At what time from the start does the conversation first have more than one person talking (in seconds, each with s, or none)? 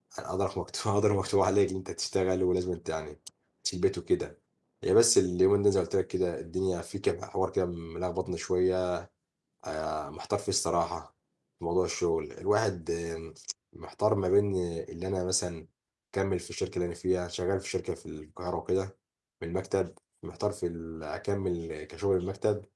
none